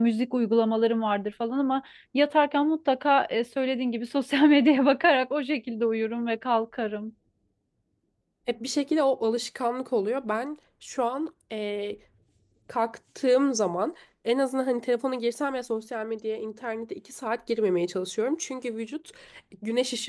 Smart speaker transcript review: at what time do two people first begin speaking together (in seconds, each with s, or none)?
none